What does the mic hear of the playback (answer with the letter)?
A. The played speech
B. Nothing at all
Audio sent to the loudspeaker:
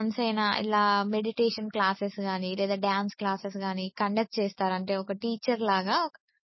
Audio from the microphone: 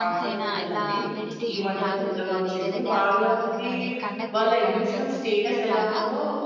A